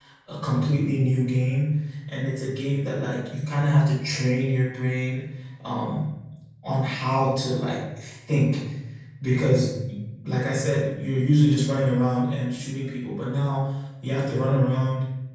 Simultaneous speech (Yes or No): No